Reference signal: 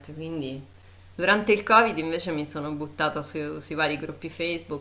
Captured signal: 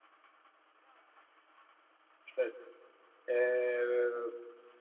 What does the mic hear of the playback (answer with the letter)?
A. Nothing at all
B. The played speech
A